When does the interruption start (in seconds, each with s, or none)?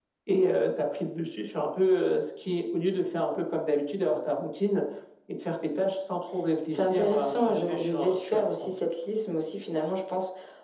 6.7 s